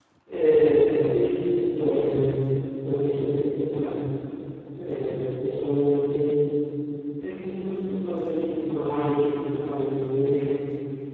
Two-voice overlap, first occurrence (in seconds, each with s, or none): none